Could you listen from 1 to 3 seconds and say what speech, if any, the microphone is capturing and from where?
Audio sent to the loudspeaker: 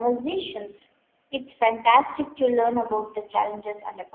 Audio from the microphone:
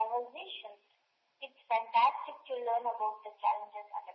echo only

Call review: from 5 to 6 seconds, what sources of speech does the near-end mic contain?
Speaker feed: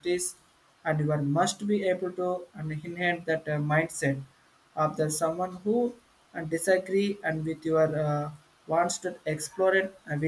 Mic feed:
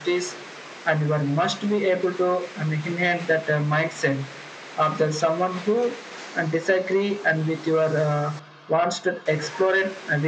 echo only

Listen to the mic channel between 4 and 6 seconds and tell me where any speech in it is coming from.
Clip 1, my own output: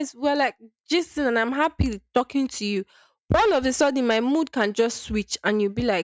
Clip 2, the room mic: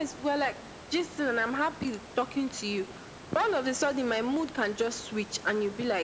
echo only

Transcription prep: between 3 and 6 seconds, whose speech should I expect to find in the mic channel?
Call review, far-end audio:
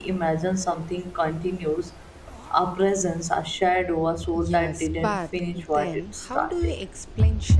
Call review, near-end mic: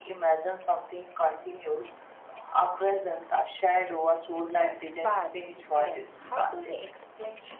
echo only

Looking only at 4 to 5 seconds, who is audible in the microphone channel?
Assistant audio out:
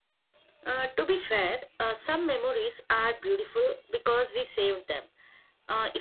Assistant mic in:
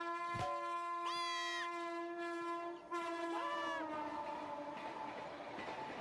neither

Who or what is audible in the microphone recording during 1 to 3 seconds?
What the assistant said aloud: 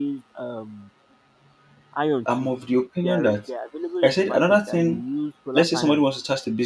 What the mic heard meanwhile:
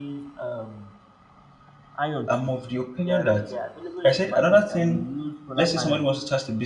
echo only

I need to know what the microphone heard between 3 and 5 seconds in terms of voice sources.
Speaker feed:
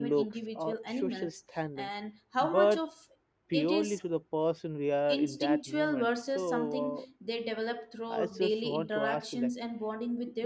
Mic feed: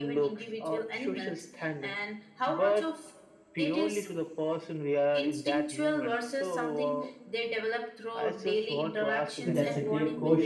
echo only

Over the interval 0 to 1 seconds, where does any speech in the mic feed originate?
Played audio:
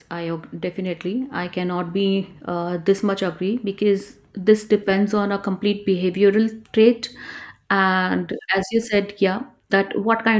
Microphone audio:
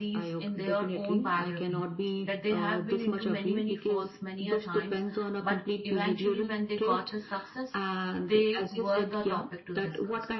both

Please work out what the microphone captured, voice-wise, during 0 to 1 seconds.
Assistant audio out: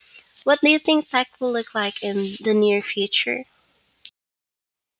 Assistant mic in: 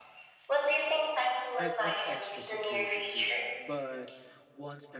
echo only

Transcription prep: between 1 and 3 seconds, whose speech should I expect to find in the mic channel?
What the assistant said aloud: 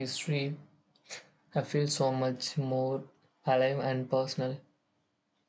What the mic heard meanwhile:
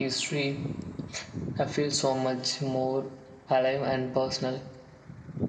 echo only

